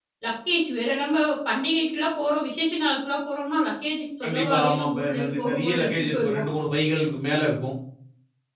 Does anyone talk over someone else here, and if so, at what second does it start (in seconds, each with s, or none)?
4.2 s